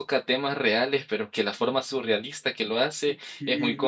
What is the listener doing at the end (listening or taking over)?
taking over